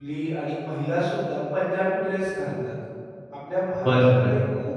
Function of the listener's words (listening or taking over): listening